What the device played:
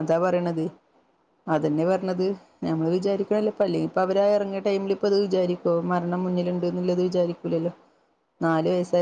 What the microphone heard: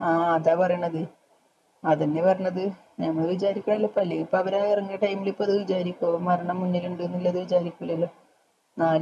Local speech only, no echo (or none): none